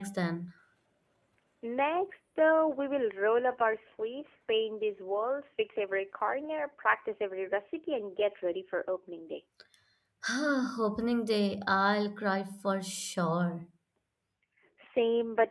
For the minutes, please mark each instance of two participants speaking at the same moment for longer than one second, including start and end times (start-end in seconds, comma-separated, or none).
none